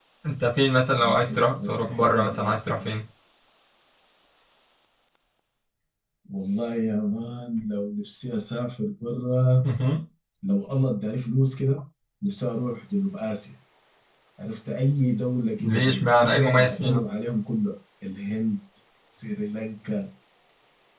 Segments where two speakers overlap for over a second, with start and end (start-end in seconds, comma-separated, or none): 1.0-2.8, 15.6-17.0